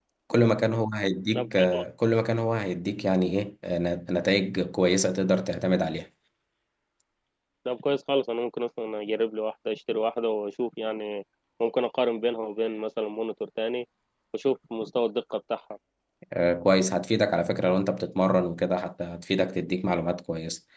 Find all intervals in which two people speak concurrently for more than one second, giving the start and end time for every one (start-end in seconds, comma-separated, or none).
none